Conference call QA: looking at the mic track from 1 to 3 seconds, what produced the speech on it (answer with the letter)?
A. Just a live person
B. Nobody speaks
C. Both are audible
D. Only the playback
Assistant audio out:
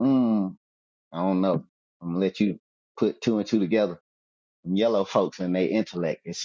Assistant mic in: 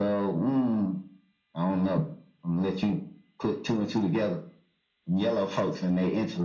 D